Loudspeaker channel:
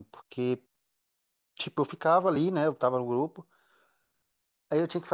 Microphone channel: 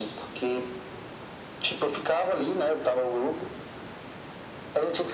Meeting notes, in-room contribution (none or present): none